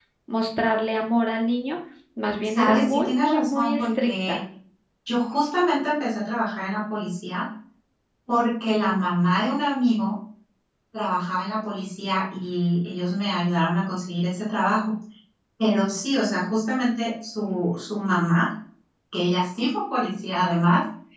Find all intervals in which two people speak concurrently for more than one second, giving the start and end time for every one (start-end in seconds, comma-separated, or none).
2.4-4.4